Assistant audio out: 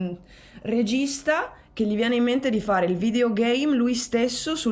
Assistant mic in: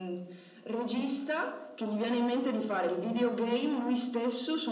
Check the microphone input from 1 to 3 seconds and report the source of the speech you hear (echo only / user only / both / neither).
echo only